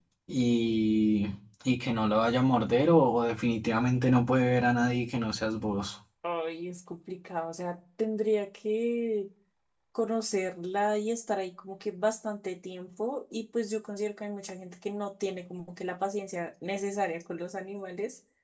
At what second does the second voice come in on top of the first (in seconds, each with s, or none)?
none